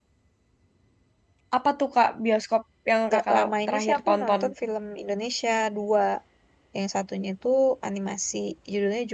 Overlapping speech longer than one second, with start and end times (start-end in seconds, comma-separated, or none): 3.1-4.4